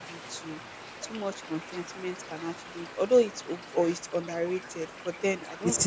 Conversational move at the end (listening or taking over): taking over